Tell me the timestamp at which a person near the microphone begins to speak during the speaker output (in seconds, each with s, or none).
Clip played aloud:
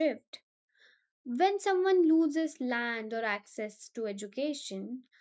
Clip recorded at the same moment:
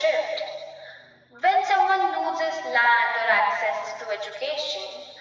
none